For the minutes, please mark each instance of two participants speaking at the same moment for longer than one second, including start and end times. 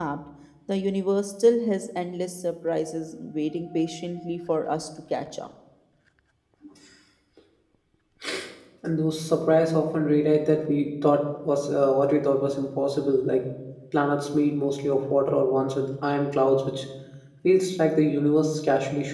none

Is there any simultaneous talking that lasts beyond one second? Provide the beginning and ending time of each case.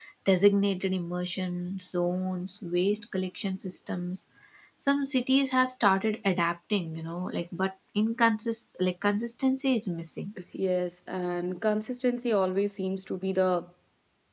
none

